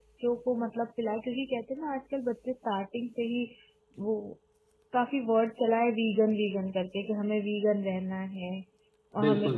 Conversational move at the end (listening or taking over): listening